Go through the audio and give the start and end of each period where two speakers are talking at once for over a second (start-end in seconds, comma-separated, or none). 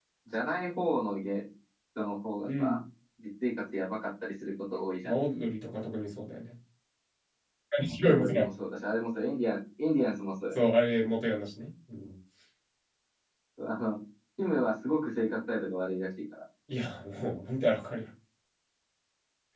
none